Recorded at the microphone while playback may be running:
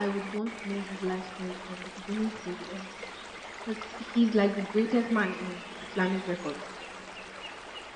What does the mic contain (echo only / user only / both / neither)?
echo only